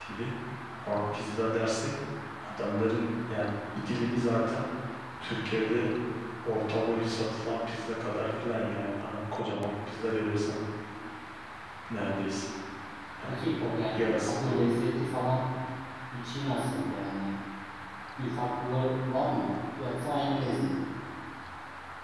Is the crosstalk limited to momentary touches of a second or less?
No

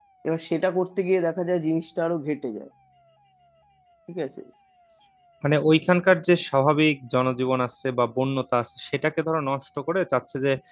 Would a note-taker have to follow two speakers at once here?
No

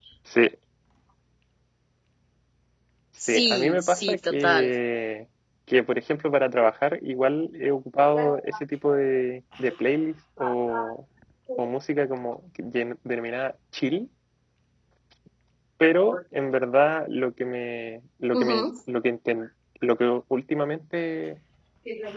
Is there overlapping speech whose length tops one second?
Yes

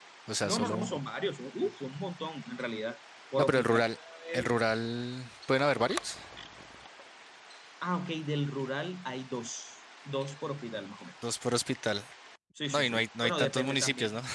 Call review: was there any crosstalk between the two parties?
Yes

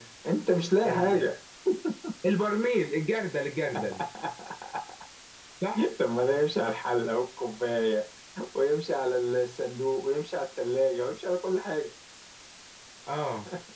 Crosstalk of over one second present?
No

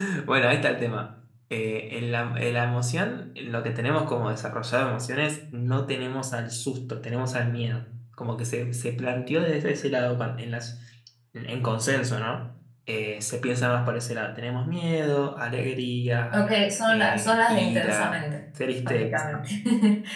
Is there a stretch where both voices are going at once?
Yes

